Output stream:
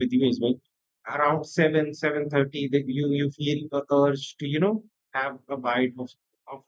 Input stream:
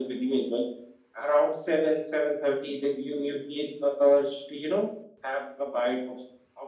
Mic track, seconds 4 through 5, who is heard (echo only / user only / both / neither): echo only